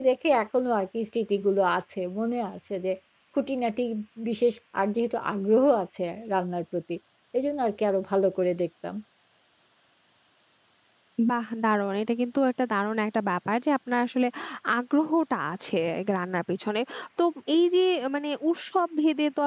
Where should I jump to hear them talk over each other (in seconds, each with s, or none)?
none